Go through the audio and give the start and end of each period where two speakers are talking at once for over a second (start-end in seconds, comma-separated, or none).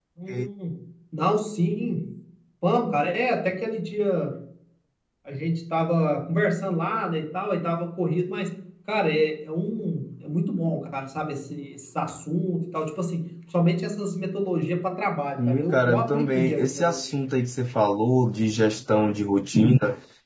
15.4-17.0